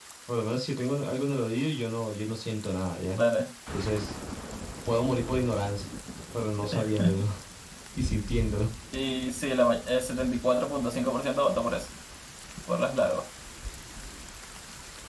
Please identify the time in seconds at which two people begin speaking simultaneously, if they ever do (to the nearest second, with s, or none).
none